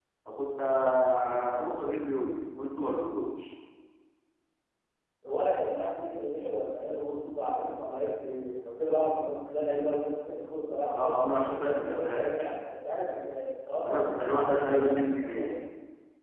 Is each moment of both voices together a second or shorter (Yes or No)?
No